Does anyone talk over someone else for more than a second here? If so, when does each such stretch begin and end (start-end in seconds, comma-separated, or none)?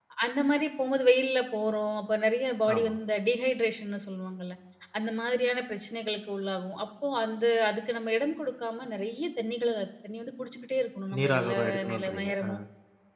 11.2-12.6